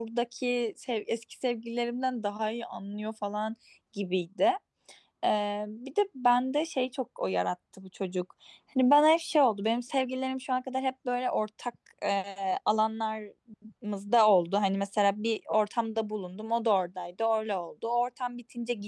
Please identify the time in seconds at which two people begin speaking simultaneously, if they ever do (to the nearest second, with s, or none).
none